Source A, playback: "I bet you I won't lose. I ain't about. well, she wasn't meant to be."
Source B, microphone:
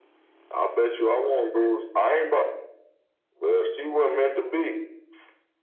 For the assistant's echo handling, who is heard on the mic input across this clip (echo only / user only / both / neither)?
echo only